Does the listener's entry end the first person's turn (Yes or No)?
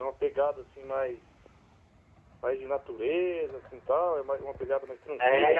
Yes